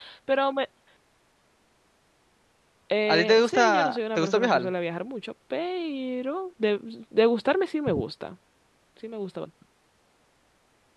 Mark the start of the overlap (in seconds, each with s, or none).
3.1 s